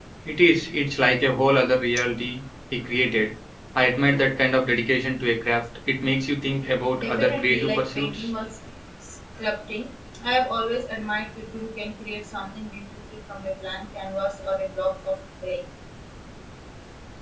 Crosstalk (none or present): present